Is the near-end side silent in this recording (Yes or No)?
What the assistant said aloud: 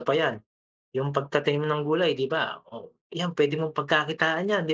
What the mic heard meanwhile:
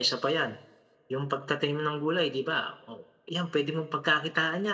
Yes